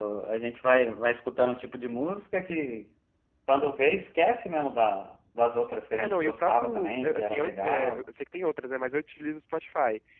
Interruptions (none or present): present